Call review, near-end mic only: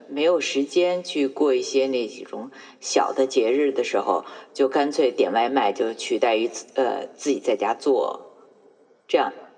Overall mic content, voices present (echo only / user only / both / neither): echo only